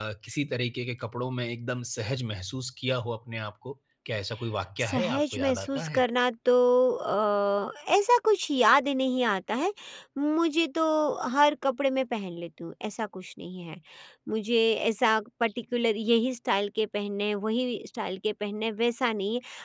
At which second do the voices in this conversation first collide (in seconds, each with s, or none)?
4.8 s